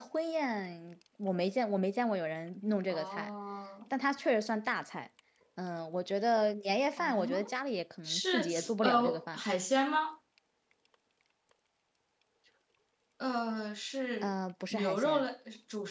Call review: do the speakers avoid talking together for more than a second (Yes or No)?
No